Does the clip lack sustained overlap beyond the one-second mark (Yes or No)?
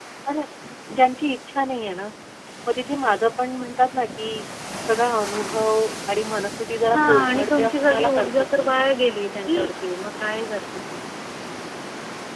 No